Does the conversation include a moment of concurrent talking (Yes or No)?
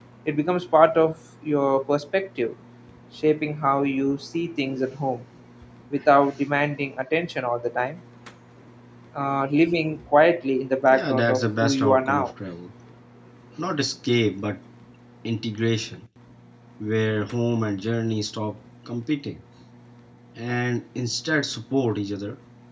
Yes